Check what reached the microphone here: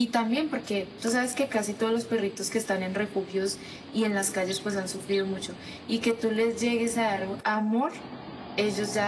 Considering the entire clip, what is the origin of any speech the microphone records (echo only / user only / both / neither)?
echo only